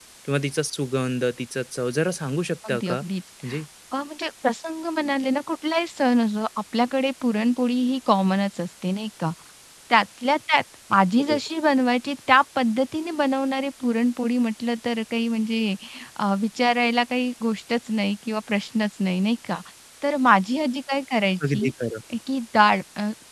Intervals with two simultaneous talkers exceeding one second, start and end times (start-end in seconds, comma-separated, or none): none